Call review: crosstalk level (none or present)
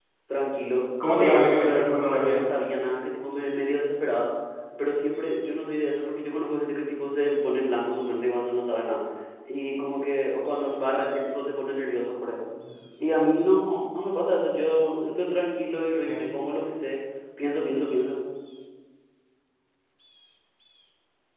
present